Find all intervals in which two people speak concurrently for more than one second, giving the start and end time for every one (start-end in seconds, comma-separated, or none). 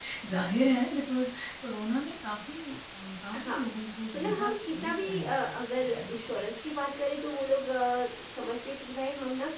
4.2-6.4